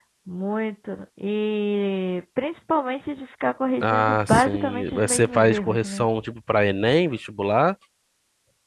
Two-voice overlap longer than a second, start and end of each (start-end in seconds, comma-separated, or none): 3.8-6.0